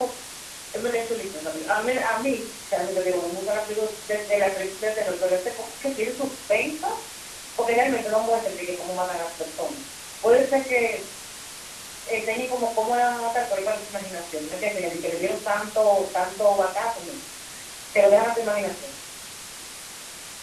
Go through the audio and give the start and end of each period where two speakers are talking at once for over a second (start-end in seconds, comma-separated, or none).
none